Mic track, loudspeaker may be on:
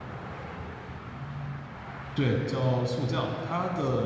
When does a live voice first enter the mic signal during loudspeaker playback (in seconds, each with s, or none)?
2.1 s